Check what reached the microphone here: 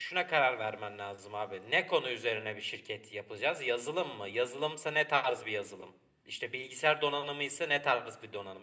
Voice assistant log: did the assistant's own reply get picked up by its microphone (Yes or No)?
No